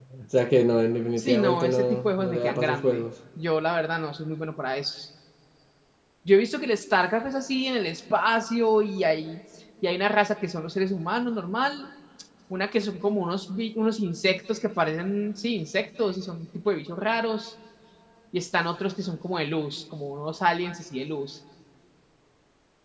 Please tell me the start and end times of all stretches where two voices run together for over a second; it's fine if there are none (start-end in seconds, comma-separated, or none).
1.2-3.1